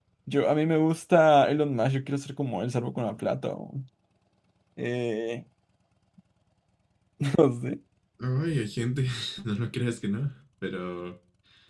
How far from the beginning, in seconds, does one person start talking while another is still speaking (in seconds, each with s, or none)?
none